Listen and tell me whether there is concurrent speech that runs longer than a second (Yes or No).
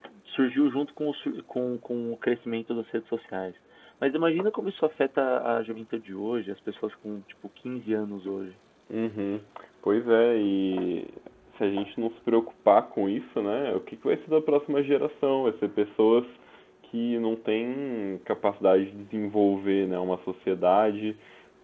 No